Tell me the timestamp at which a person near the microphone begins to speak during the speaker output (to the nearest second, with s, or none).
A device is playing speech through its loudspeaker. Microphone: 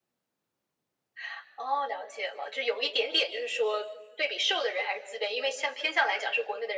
none